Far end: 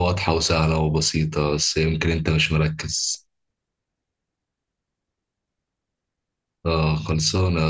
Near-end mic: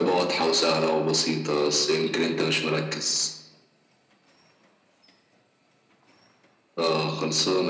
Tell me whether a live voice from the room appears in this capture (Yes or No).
No